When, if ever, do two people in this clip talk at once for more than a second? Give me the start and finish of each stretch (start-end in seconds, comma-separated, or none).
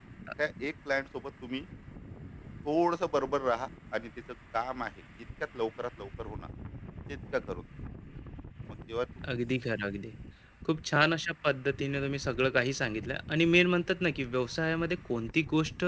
none